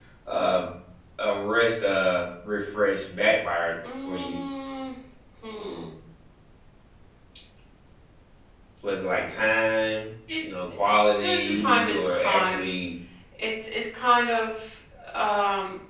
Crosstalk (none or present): present